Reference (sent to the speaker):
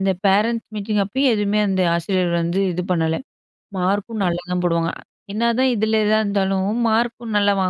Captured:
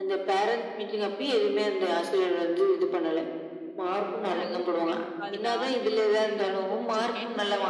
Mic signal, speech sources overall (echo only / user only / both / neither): both